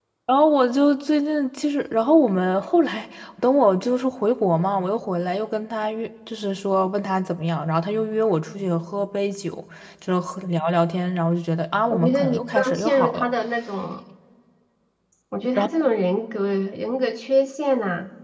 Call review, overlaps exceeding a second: present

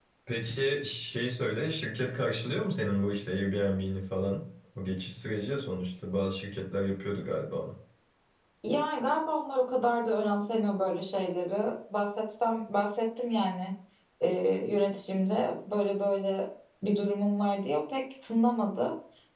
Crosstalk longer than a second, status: none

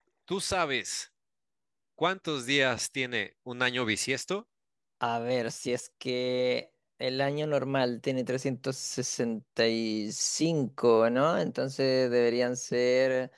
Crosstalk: none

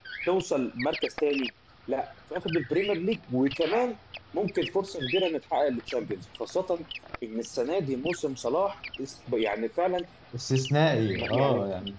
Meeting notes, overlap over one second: none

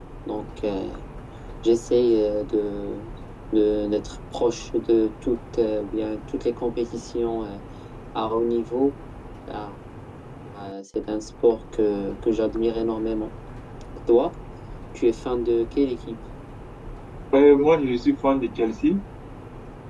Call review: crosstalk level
none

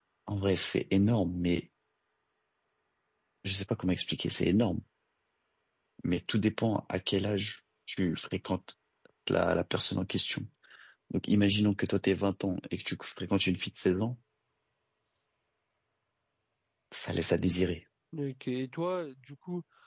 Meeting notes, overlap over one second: none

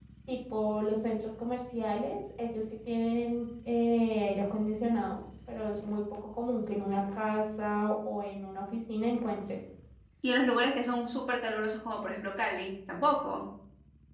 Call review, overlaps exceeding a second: none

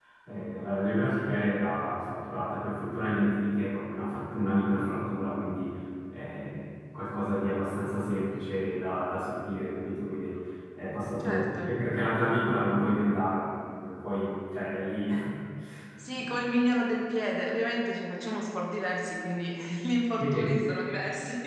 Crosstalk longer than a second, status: none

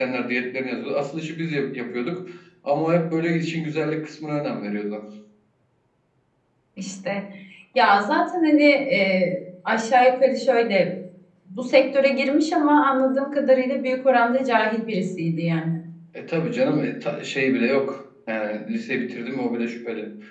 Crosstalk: none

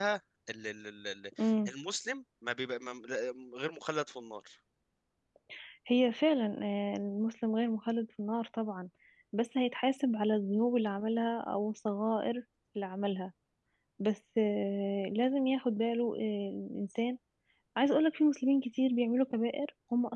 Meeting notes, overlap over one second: none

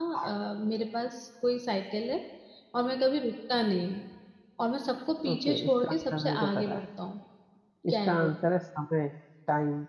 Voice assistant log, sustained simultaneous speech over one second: present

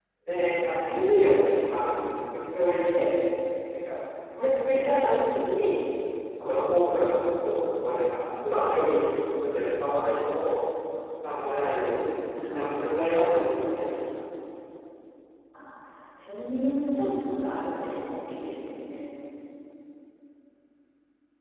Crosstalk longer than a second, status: present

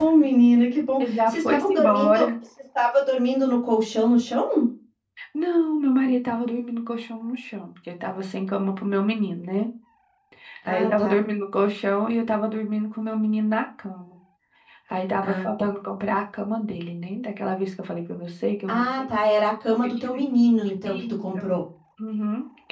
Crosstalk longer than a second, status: present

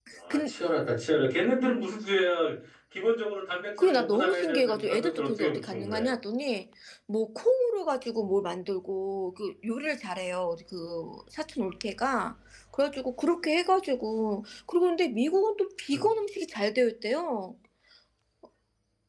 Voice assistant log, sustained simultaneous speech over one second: present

